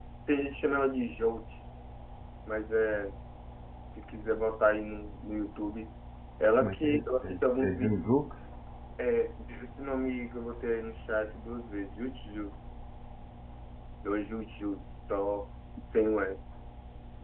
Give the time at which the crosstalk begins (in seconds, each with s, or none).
6.6 s